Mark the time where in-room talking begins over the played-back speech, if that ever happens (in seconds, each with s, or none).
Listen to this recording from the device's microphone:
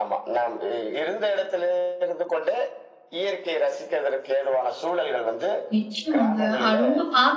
5.7 s